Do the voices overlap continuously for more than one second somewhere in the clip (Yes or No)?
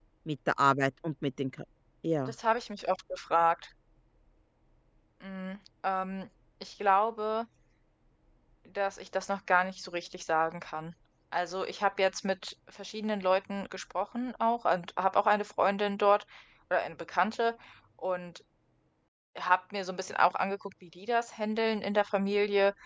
No